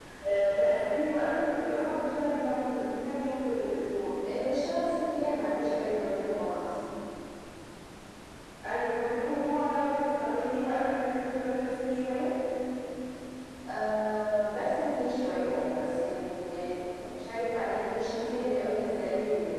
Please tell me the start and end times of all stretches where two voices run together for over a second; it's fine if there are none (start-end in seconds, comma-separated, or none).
none